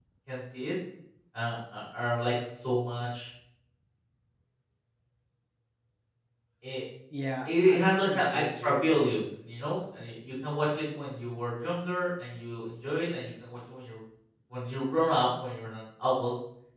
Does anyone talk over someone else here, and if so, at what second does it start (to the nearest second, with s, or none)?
7 s